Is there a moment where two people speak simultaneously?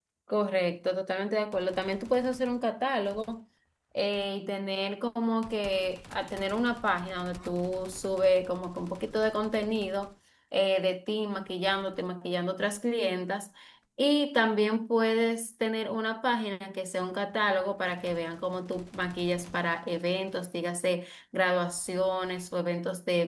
No

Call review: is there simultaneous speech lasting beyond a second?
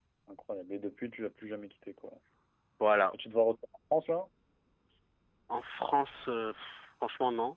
No

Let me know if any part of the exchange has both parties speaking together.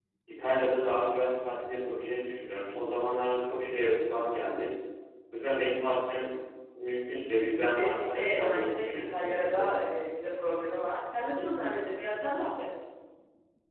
Yes, from 7.6 s

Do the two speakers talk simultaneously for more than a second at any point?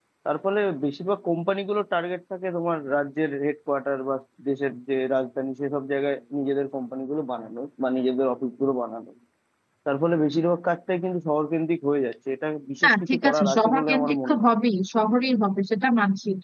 Yes, from 12.8 s

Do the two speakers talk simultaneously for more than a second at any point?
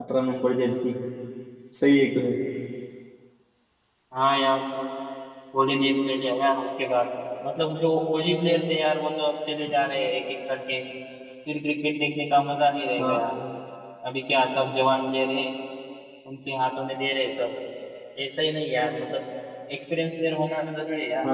No

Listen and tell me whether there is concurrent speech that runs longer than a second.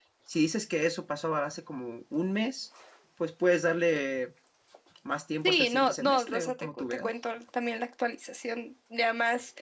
Yes, from 5.4 s

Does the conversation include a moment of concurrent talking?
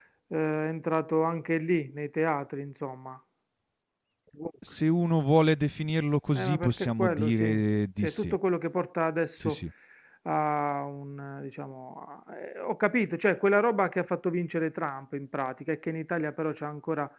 Yes, from 6.3 s

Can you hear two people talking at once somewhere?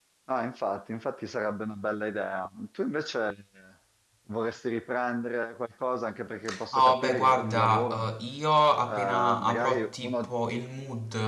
Yes, from 6.7 s

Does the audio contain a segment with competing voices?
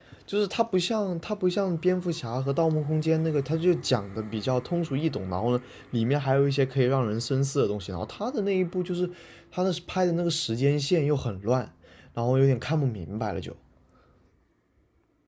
No

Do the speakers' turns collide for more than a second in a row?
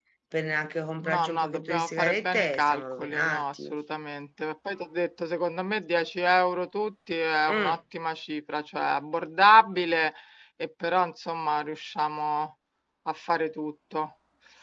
Yes, from 1.0 s

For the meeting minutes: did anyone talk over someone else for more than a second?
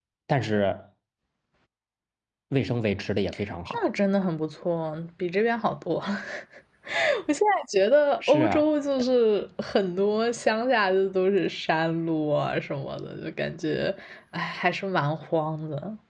No

